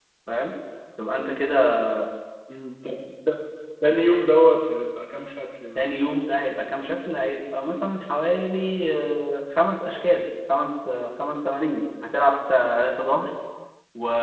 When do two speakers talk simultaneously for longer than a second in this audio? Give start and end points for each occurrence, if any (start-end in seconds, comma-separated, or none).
none